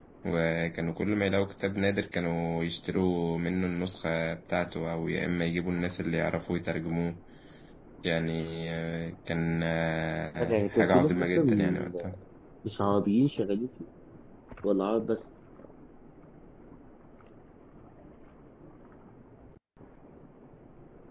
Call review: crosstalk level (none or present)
present